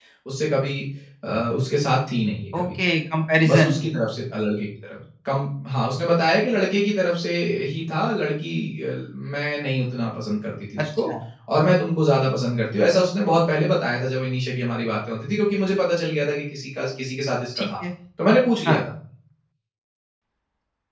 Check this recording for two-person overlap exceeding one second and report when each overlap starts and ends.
none

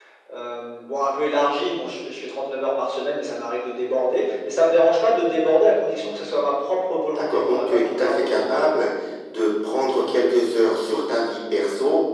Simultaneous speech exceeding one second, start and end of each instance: 7.1-8.4

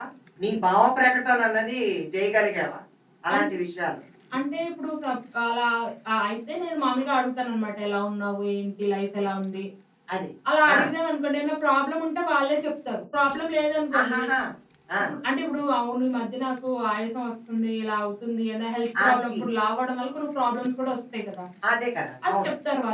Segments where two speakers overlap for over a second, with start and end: none

